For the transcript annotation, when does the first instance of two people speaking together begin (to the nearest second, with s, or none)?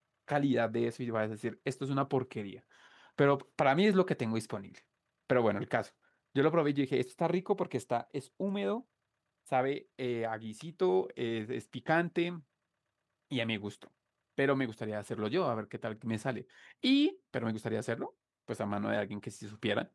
none